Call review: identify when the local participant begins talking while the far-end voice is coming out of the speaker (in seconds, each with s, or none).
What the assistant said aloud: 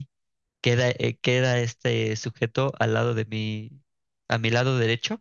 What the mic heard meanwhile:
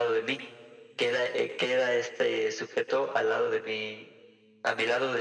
none